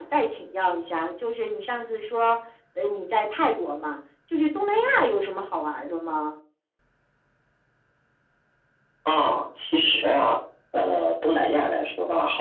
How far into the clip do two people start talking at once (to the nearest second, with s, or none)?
none